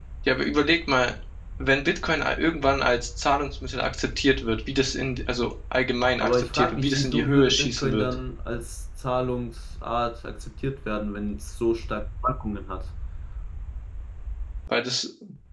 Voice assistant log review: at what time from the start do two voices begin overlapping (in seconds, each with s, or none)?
6.2 s